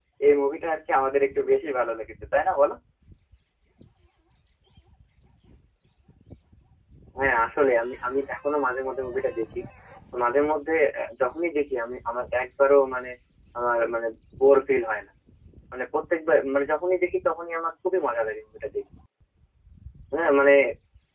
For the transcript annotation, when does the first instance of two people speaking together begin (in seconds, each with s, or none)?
none